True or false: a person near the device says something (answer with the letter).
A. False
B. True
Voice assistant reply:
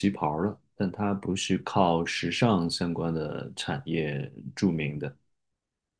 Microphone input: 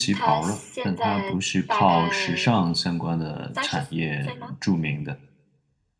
B